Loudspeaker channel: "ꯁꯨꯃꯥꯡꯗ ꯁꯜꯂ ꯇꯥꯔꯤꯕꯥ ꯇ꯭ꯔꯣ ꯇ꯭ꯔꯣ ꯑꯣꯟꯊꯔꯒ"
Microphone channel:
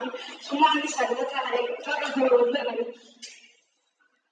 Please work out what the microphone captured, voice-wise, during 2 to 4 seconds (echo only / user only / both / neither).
echo only